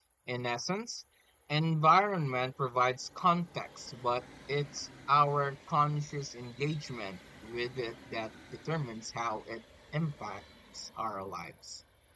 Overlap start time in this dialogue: none

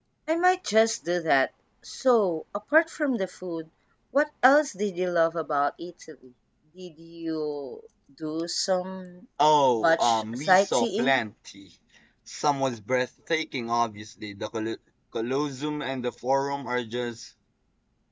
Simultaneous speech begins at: 10 s

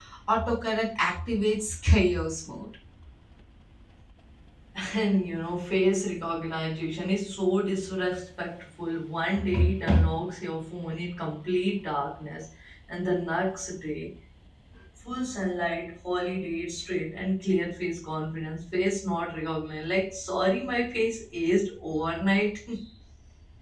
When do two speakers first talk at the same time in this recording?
none

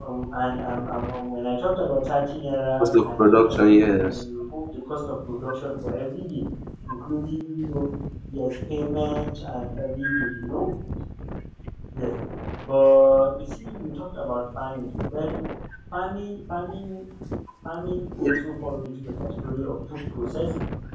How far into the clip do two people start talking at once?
3 s

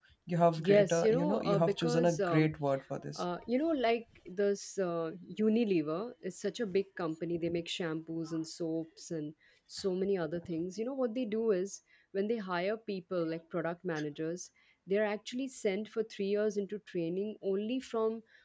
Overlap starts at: 1 s

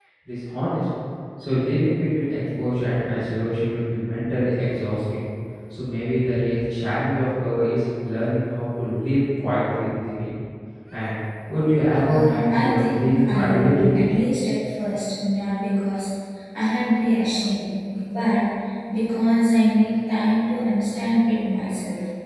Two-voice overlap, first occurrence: 12 s

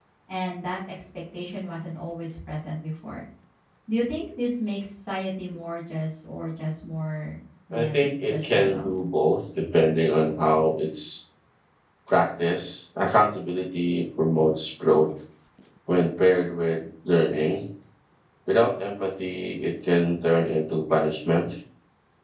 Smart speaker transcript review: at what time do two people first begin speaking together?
8 s

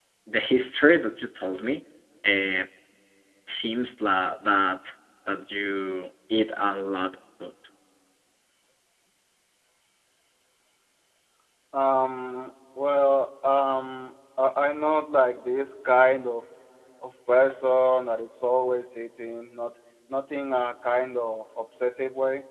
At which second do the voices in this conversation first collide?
none

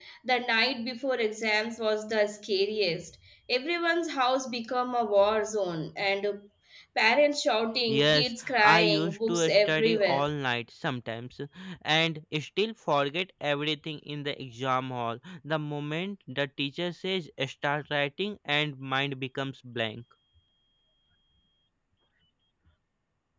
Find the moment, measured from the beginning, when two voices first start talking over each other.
8 s

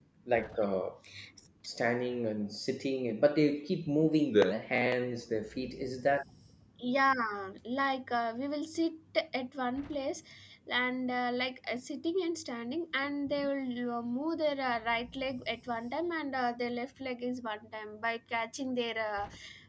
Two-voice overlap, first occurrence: none

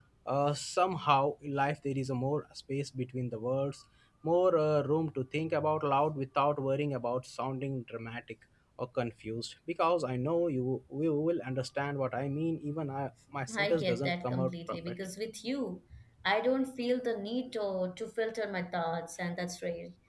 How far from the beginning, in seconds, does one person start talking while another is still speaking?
13 s

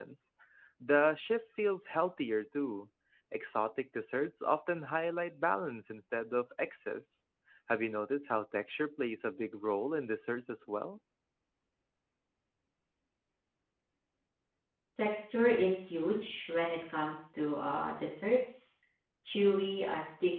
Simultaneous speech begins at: none

